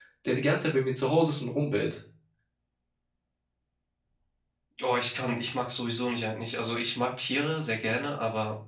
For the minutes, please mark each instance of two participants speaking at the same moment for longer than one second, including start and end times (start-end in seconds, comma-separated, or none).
none